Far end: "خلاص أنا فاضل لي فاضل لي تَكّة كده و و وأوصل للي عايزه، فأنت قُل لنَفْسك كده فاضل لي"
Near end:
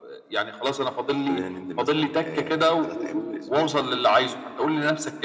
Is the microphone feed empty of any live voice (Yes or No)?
No